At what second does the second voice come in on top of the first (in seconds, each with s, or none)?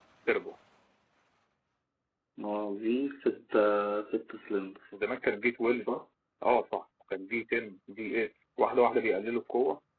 none